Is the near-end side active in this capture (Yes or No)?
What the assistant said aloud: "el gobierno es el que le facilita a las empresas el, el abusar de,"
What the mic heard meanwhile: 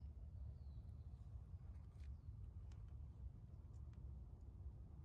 No